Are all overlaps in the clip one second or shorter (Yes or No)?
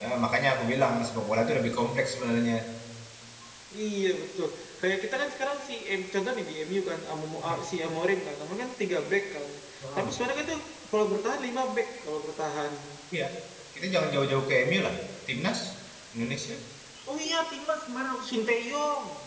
Yes